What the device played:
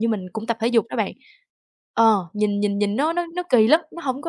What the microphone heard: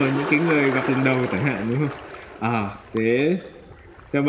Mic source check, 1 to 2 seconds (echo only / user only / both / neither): user only